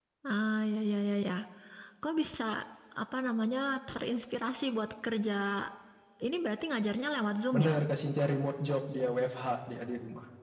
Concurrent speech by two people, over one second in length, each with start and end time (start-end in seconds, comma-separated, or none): none